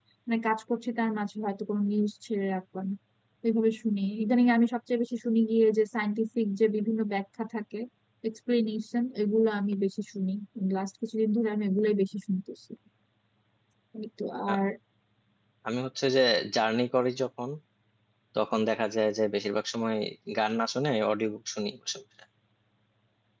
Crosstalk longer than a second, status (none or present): none